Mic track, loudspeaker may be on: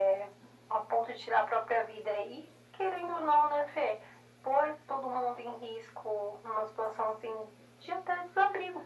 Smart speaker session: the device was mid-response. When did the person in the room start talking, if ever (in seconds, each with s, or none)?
none